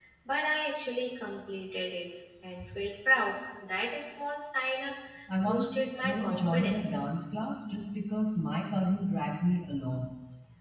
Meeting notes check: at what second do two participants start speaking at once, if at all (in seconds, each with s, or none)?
5.5 s